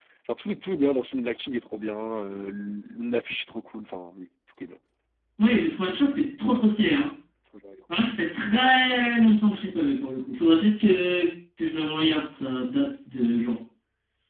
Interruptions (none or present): none